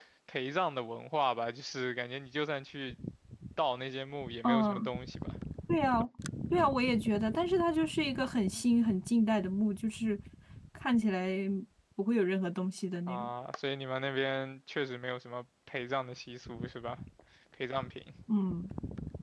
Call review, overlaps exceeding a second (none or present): none